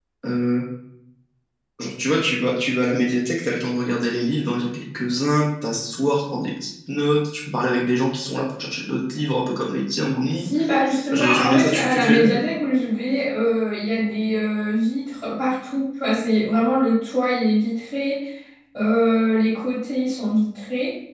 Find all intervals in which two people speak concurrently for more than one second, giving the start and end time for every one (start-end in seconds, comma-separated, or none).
11.1-12.4